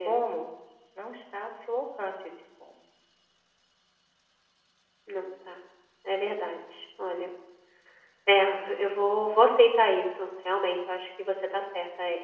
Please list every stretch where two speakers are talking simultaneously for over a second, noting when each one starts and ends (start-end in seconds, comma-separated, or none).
none